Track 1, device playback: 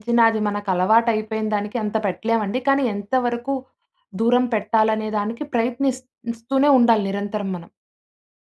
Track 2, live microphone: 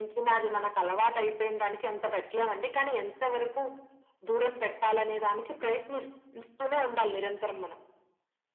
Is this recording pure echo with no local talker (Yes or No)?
Yes